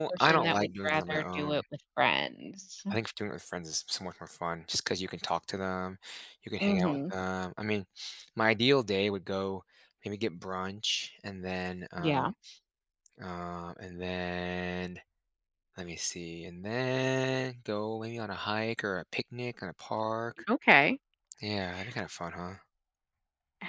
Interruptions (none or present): present